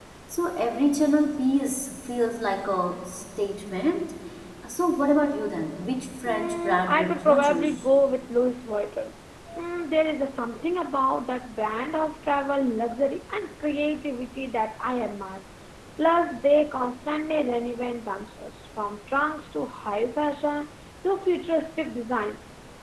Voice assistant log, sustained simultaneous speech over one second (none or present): present